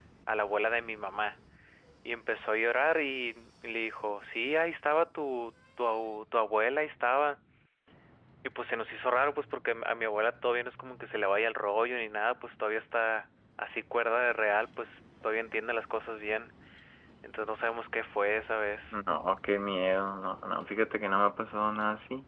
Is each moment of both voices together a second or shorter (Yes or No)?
Yes